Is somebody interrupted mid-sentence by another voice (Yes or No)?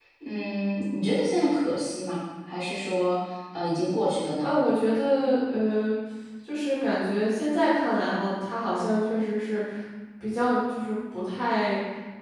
No